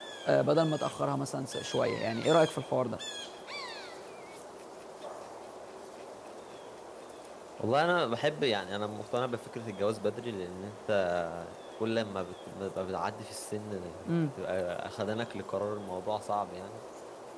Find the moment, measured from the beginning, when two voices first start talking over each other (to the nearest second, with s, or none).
none